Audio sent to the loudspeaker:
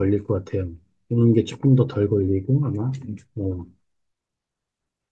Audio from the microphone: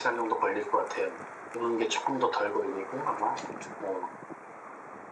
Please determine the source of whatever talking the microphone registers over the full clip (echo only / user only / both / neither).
echo only